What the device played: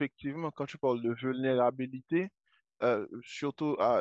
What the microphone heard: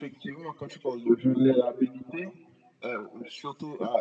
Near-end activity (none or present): none